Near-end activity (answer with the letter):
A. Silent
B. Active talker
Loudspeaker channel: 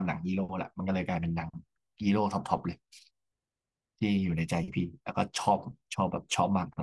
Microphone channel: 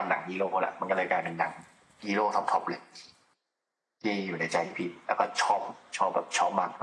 A